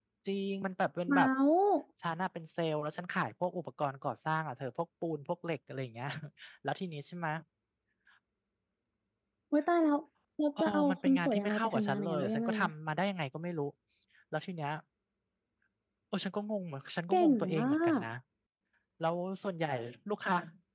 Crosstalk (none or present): present